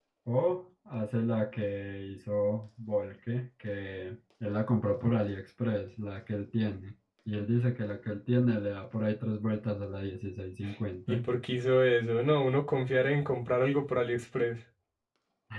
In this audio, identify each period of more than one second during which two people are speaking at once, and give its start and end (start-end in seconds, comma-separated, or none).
none